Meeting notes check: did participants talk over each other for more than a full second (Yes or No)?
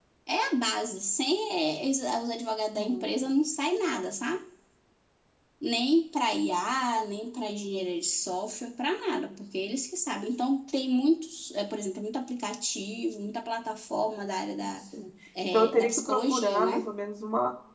Yes